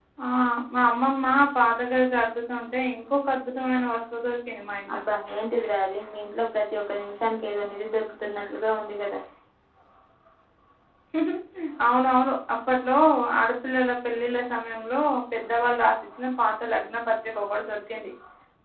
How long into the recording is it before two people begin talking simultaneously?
none

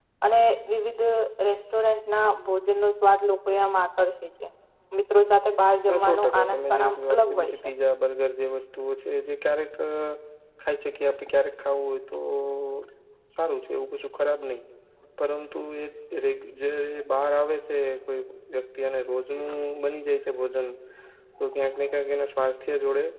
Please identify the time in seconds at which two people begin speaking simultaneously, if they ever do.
6 s

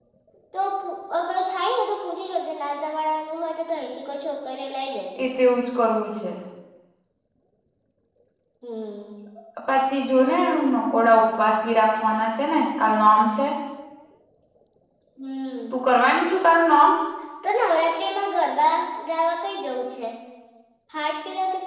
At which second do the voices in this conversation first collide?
none

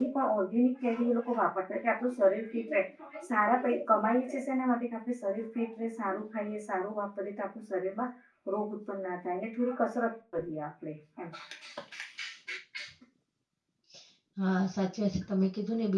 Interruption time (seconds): none

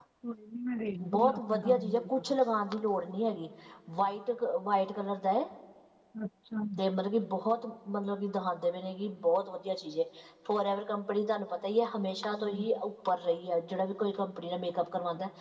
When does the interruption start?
1 s

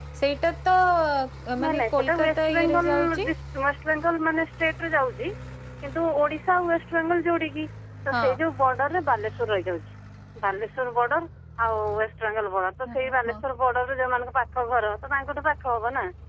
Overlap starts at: 2 s

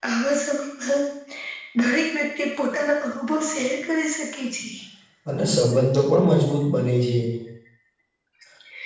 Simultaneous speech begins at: none

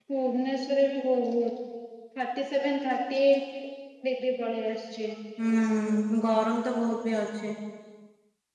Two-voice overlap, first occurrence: none

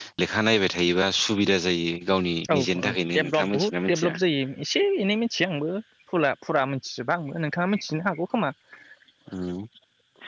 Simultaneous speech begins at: 2 s

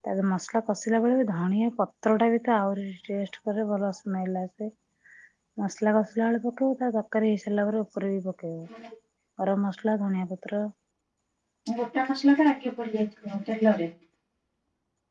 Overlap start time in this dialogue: none

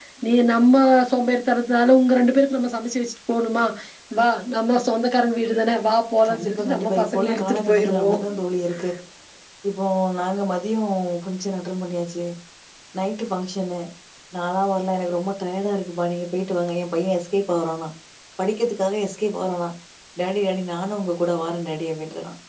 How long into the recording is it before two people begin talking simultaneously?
6 s

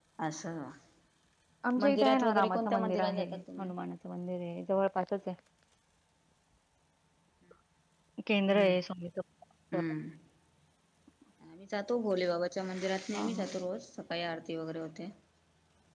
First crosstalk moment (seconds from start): 2 s

